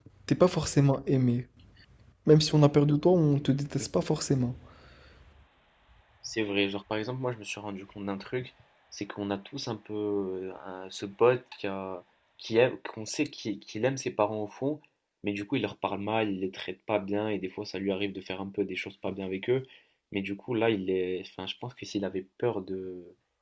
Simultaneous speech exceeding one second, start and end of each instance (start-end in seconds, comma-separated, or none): none